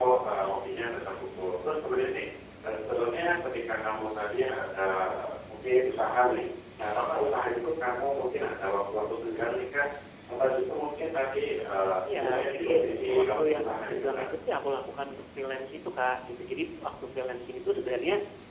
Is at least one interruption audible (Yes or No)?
Yes